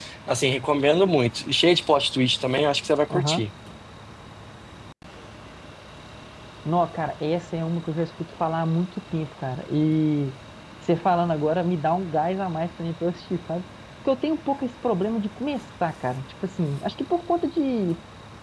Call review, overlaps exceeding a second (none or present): none